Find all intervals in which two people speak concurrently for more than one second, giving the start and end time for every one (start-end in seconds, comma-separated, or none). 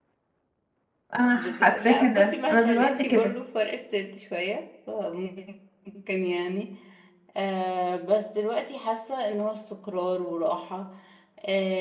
1.4-3.3